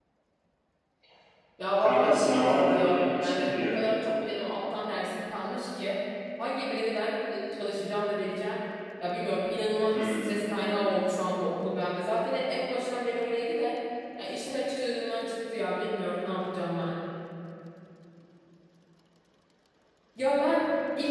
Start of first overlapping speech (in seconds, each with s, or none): 1.8 s